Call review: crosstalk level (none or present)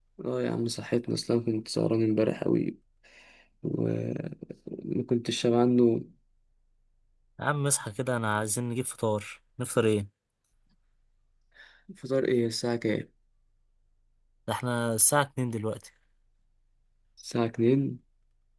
none